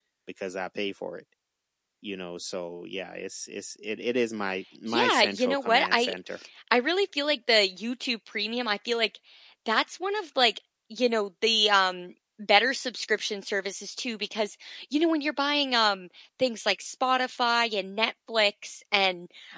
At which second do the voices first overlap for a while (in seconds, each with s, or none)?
4.9 s